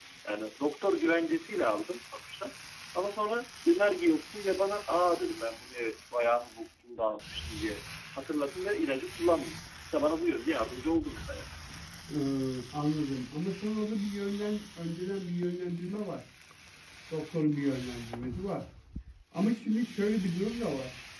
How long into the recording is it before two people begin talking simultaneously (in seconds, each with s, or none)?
none